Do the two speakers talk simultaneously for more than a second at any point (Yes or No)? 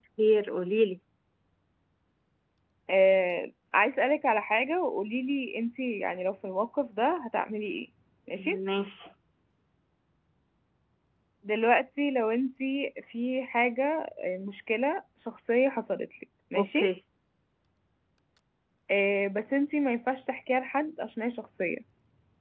No